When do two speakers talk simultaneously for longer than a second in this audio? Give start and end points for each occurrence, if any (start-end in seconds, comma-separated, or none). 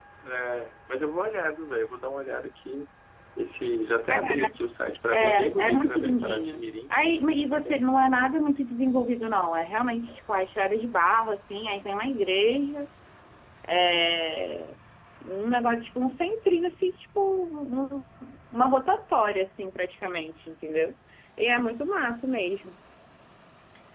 5.1-6.7